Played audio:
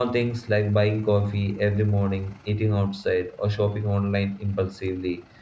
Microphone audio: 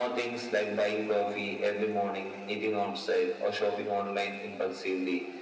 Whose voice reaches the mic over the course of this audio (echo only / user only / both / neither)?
echo only